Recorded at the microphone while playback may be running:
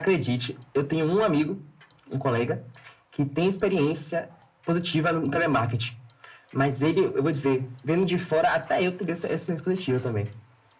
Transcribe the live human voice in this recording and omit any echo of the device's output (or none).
none